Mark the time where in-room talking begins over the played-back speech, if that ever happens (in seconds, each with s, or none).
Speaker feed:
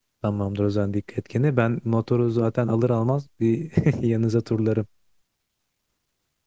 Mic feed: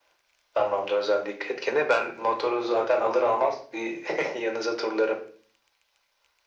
none